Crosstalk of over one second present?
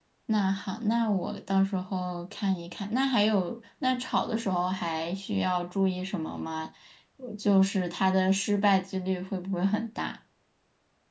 No

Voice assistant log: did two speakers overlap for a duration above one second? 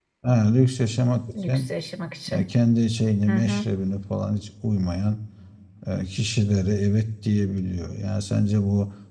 No

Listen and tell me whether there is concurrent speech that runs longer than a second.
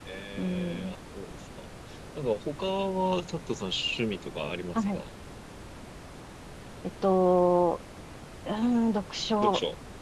No

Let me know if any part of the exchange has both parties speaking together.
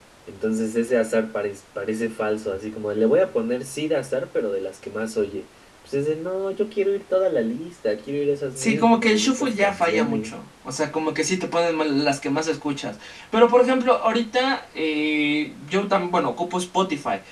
Yes, from 8.6 s

